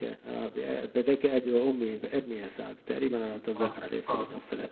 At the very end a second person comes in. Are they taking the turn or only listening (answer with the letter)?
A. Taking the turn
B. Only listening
A